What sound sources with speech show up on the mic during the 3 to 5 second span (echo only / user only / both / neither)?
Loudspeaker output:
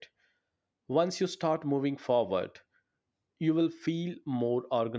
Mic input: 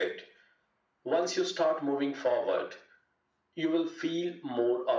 echo only